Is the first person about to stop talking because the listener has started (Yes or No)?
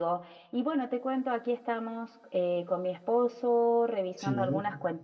No